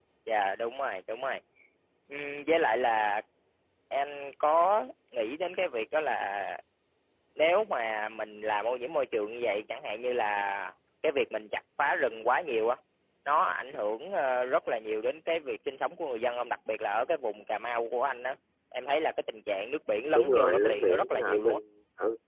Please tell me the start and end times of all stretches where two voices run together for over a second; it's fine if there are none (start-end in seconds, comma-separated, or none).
20.1-21.6